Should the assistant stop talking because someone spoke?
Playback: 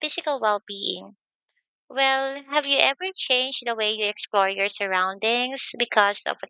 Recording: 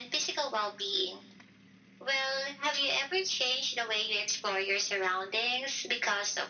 No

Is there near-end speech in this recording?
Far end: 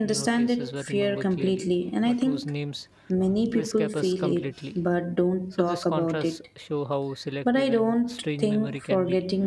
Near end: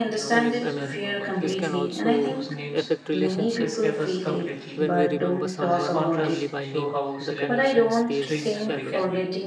Yes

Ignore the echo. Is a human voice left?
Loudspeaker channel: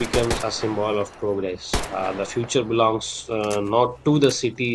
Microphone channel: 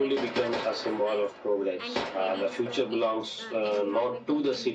Yes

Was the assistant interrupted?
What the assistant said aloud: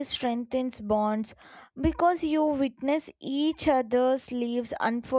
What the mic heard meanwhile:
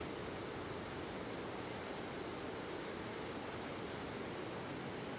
No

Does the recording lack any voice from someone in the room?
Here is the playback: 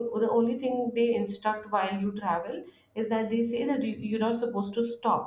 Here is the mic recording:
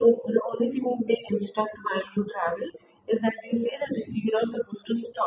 Yes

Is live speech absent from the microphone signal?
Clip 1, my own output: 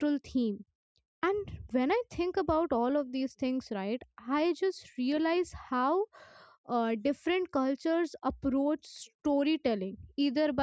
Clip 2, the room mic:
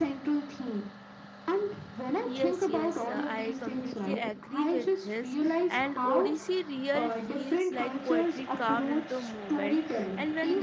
No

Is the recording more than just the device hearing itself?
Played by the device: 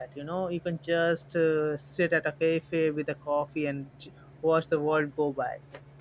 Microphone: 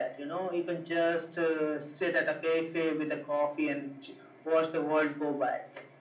No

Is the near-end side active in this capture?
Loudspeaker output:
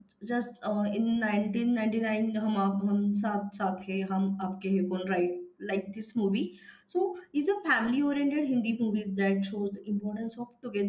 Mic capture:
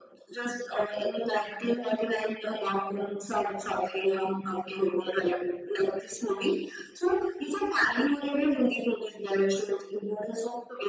No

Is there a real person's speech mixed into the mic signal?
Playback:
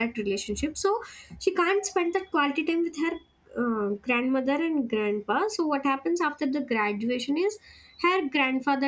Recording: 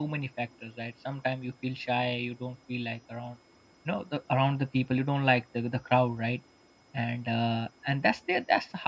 Yes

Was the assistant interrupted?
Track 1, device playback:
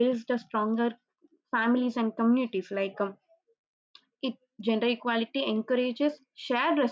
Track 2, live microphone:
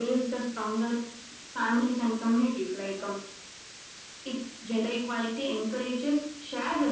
No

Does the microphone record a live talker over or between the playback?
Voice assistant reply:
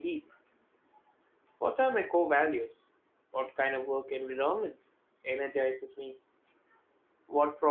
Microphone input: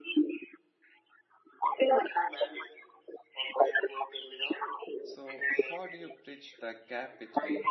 Yes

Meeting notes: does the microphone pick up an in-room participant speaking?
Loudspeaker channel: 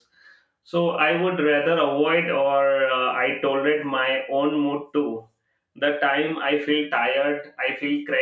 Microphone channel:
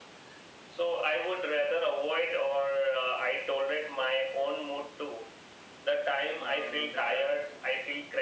Yes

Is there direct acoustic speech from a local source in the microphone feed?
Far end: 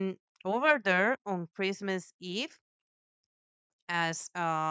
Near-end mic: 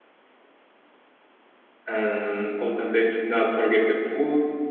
Yes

